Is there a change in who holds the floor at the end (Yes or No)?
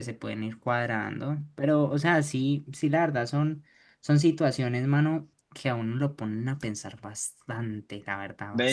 Yes